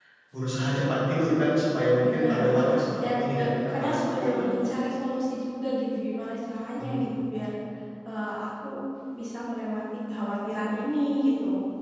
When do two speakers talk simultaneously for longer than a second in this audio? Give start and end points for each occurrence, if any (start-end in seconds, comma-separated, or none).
2.9-4.5